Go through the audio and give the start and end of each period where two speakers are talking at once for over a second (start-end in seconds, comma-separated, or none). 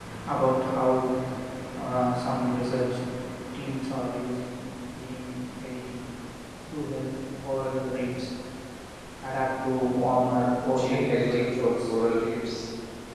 10.7-11.9